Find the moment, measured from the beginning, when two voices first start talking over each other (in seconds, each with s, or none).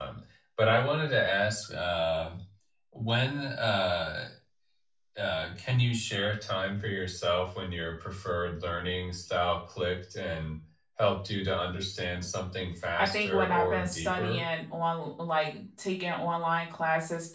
12.9 s